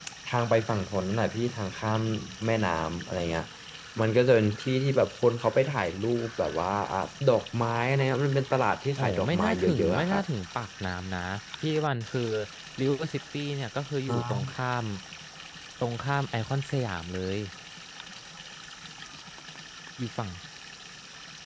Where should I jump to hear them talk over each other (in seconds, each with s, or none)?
9.0 s